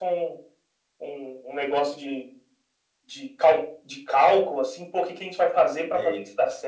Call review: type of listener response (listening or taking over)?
listening